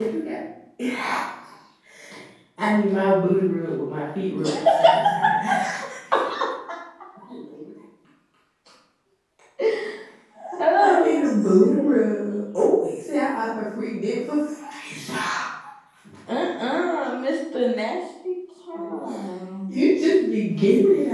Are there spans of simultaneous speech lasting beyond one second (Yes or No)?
Yes